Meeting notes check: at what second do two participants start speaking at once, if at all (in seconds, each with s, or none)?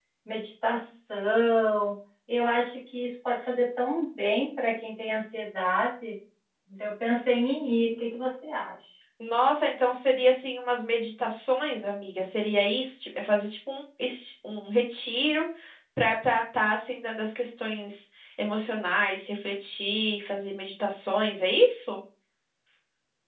none